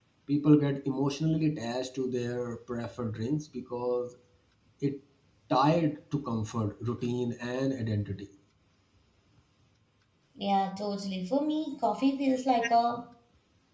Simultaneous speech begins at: none

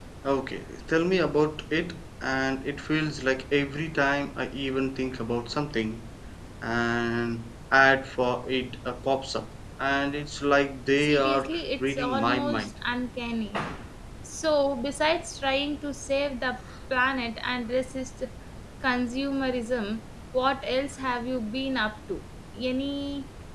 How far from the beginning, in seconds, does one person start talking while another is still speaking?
11.0 s

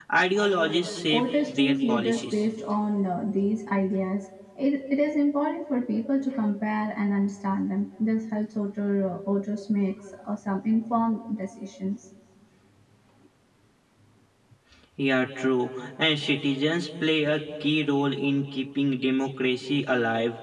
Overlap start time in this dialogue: 1.1 s

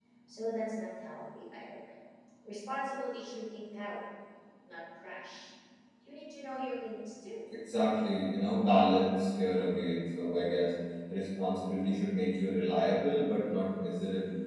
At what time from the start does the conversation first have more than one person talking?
none

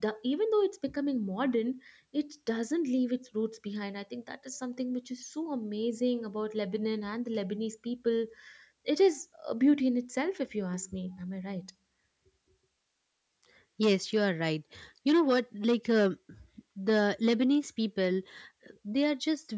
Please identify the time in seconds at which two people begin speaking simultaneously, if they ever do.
none

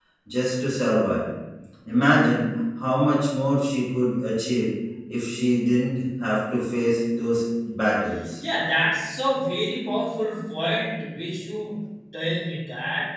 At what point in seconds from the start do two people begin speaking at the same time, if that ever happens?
none

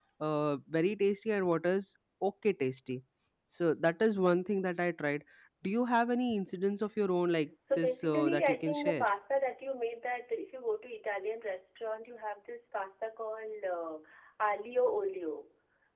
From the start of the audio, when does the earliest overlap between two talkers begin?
7.7 s

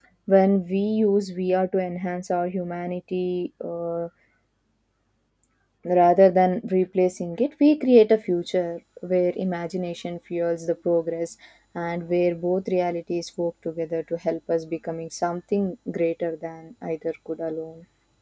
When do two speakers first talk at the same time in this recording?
none

